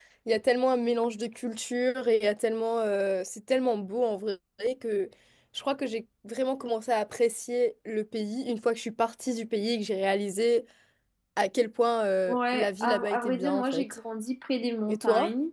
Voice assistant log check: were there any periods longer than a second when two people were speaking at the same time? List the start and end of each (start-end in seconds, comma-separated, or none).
12.3-13.8